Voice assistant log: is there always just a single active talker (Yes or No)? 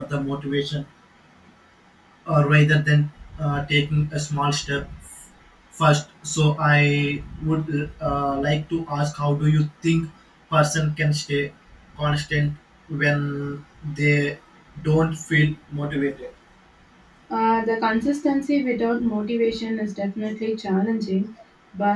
Yes